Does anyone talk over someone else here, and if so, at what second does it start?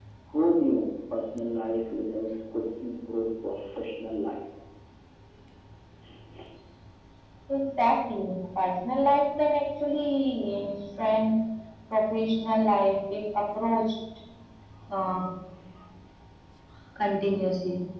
none

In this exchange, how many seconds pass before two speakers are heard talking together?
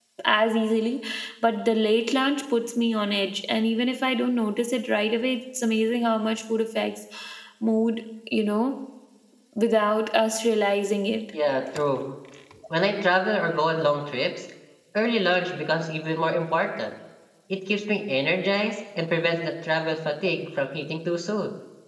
none

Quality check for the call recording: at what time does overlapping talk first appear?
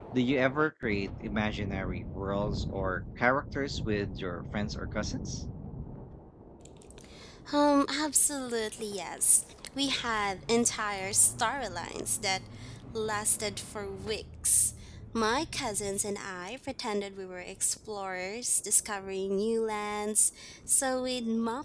none

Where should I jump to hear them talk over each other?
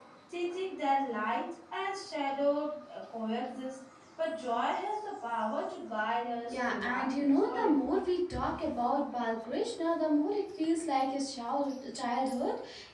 6.5 s

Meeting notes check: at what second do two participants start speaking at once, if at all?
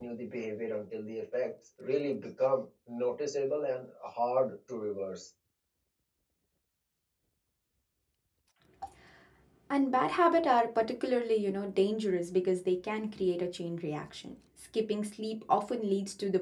none

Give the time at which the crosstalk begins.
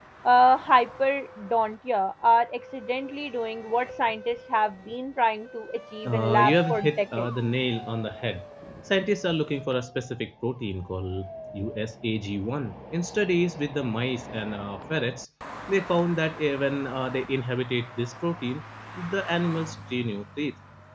6.0 s

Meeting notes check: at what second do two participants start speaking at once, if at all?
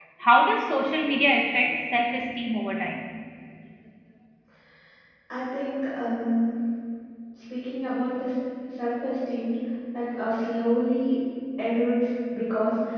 none

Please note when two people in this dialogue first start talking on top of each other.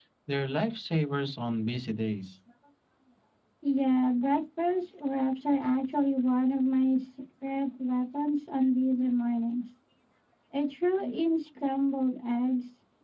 none

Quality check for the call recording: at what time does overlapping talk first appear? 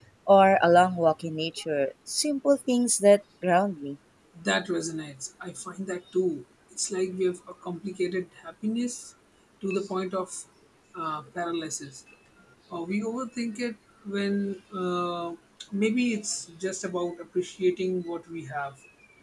none

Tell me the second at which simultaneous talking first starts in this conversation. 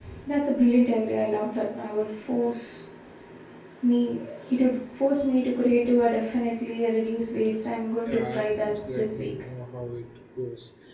8.0 s

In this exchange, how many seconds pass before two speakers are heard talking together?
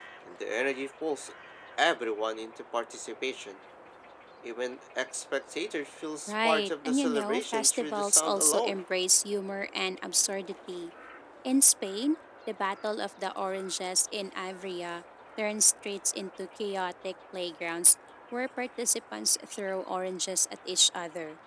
6.3 s

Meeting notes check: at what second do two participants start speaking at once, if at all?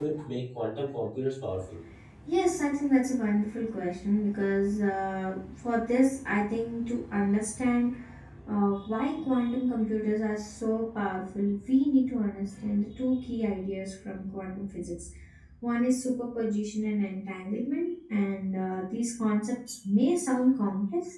none

